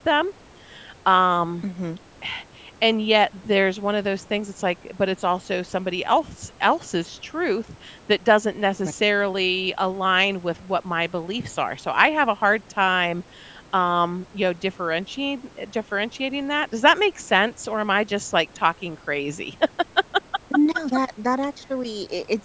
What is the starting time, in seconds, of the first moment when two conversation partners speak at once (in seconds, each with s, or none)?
none